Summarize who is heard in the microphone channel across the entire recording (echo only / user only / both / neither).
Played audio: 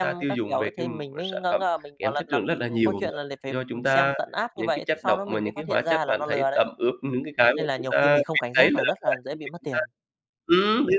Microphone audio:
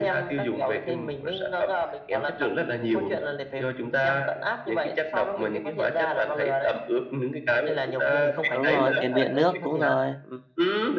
both